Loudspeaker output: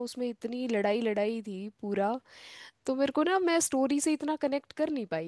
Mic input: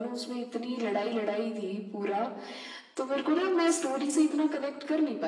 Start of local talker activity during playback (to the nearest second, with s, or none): none